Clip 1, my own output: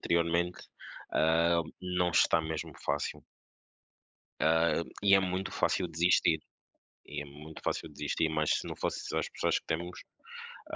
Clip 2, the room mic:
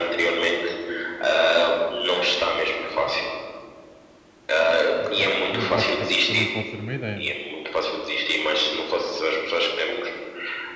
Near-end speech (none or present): present